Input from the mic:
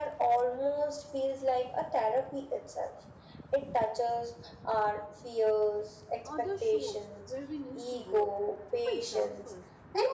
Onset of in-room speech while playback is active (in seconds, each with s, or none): 6.2 s